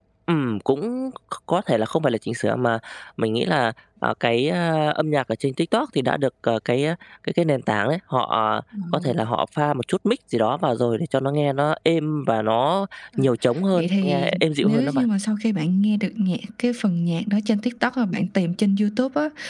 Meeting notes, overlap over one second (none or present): present